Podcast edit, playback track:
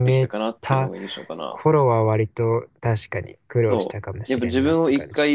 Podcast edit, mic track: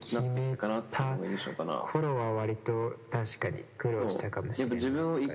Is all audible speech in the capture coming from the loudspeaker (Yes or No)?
Yes